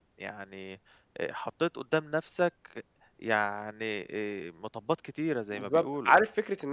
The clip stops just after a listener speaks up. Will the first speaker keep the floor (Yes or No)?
No